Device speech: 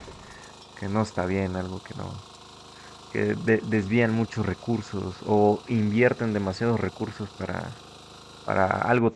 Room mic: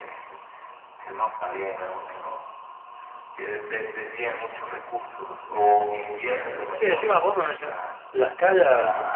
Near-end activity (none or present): present